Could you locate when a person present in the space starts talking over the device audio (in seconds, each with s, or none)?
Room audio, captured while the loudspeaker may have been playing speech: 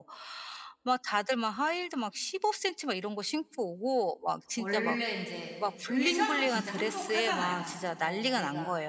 4.5 s